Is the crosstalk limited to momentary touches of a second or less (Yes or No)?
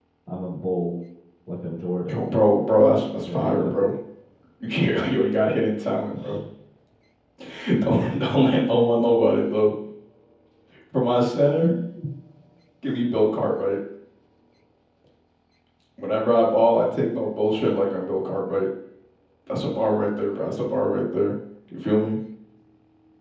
Yes